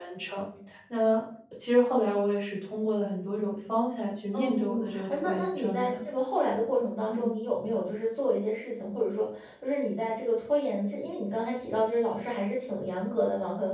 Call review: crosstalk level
present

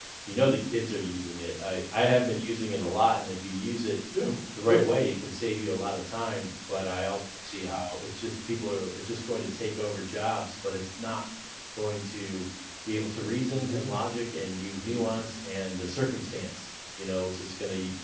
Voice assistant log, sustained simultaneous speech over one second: none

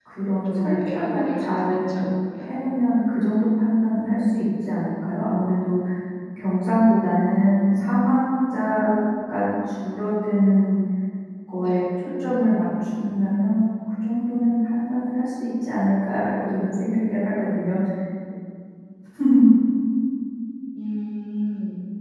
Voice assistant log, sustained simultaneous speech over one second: present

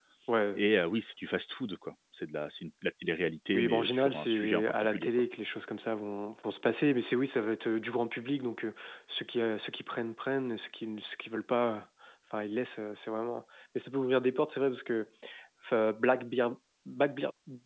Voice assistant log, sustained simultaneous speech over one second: present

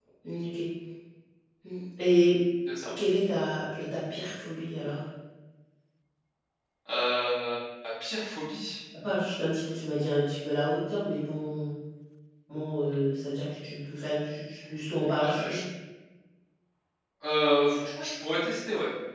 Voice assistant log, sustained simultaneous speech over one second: none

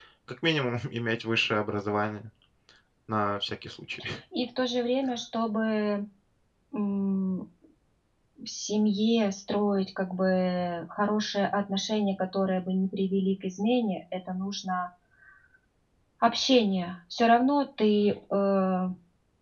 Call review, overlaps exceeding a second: none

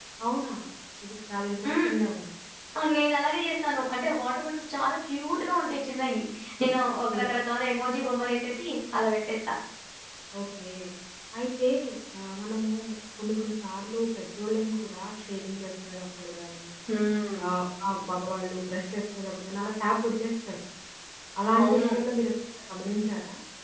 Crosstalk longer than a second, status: none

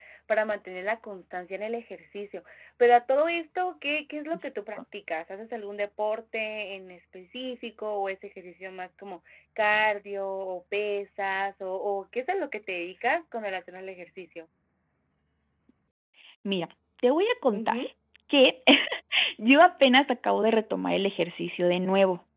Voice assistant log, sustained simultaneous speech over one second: none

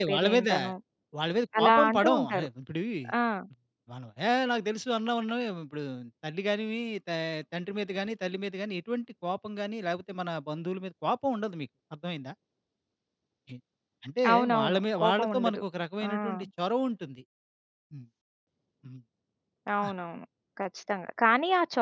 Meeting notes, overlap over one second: present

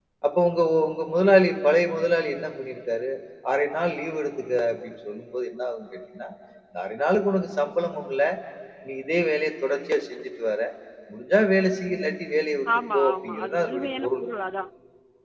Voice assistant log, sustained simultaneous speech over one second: present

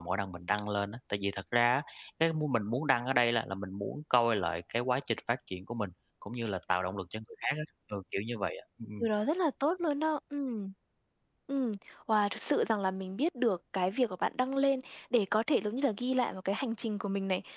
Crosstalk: none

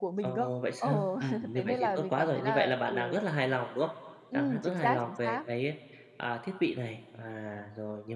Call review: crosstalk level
present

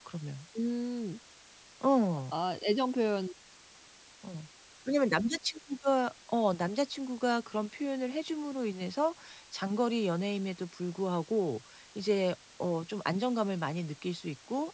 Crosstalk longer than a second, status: none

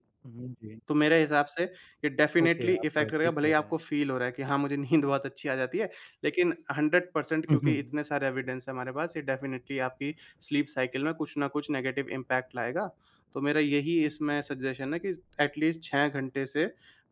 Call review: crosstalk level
present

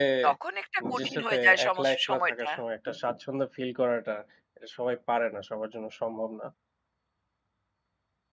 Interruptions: present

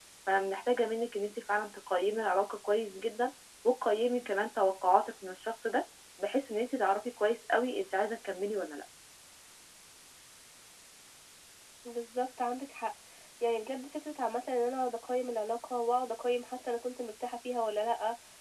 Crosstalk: none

